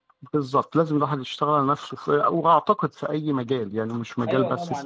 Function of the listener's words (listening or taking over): taking over